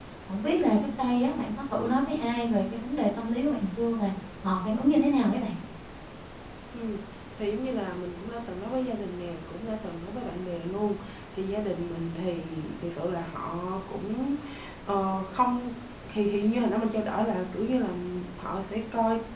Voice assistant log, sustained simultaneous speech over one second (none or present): none